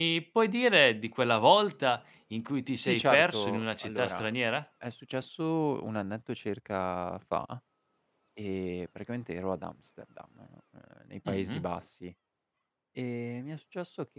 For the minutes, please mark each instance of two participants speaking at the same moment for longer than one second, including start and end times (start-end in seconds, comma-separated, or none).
2.8-4.3